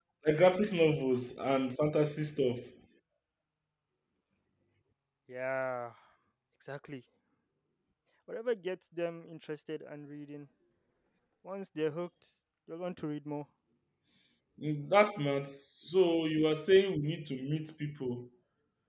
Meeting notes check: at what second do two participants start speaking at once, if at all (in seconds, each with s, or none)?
none